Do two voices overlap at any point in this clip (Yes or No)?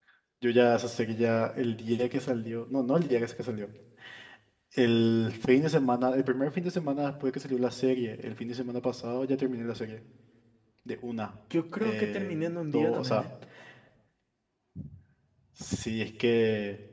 Yes